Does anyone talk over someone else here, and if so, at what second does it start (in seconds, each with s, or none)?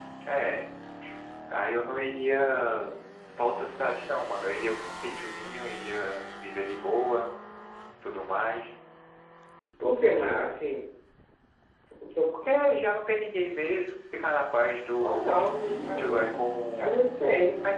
15.0 s